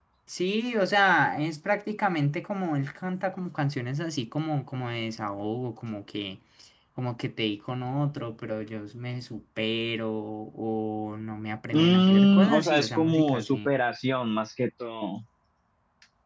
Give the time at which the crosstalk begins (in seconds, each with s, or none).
11.7 s